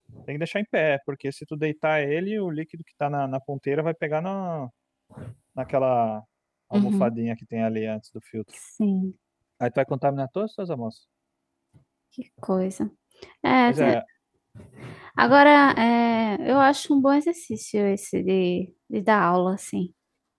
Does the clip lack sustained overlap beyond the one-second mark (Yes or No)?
Yes